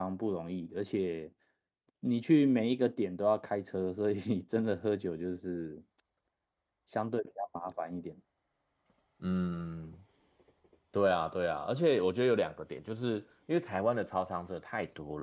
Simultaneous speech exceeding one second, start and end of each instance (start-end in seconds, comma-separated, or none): none